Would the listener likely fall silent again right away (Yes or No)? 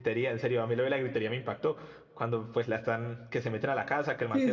Yes